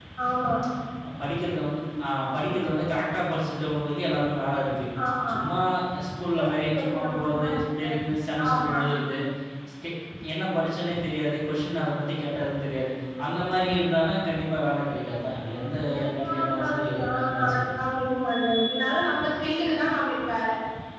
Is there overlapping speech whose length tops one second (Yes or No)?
Yes